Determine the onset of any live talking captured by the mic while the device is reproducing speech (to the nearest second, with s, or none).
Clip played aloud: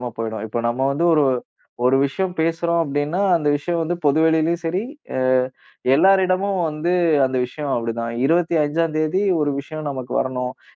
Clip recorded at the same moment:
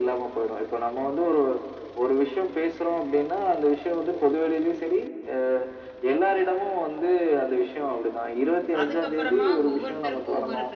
9 s